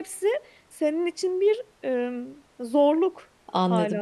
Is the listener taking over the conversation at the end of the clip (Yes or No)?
Yes